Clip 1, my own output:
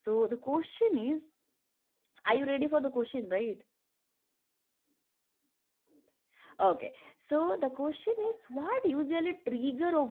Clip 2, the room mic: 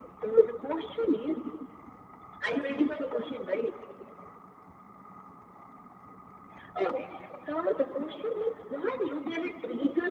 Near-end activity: none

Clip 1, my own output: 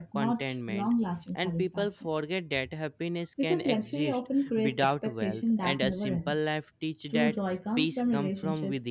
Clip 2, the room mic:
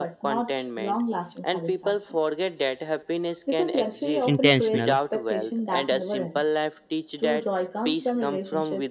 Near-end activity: present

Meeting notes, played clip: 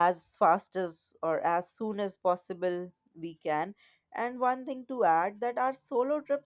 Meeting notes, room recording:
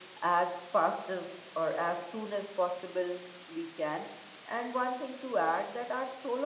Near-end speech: none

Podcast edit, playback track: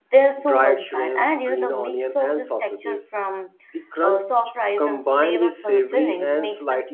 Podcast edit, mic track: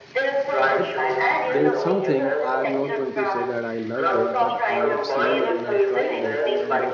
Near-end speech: present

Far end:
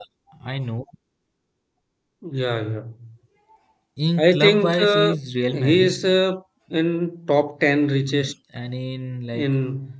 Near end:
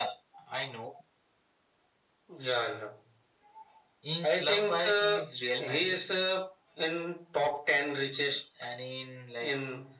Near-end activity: none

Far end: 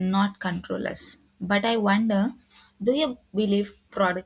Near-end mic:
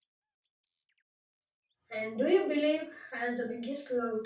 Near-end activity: present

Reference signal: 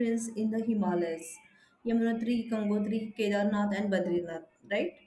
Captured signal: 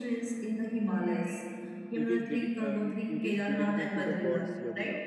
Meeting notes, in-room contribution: present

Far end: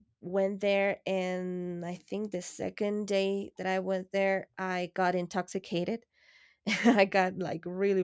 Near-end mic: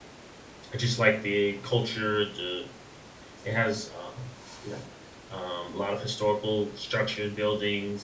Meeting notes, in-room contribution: present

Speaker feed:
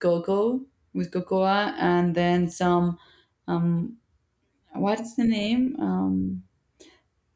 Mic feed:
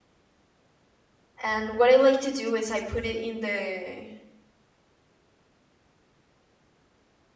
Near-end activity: present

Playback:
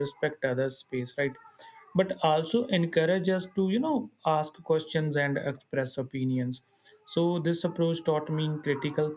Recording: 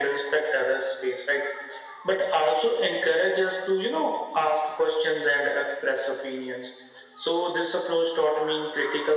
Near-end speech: none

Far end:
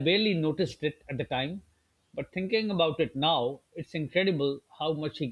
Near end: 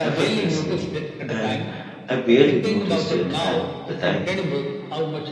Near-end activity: present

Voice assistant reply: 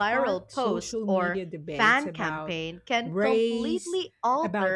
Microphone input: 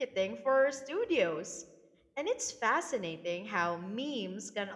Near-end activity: present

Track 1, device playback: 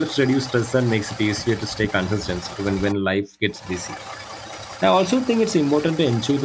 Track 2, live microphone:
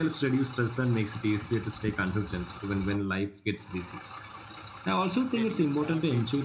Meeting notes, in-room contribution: present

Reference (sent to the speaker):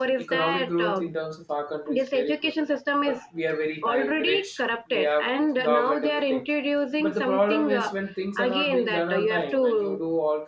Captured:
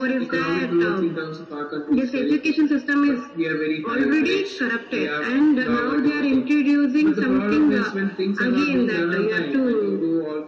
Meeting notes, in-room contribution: none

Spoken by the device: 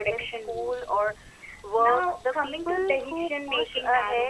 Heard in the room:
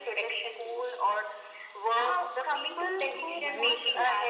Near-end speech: present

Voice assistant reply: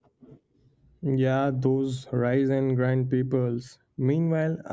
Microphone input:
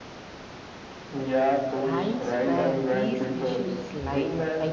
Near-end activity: present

